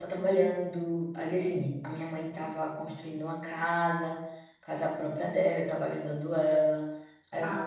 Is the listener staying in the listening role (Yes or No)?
No